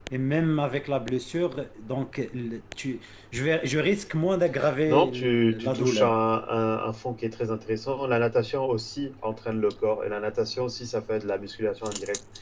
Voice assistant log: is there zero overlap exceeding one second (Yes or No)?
No